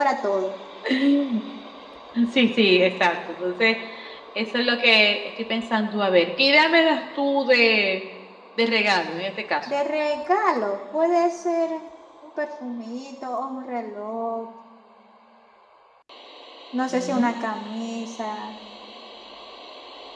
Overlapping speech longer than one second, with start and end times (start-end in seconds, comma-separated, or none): none